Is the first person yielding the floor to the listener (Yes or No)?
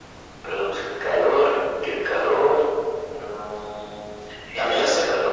Yes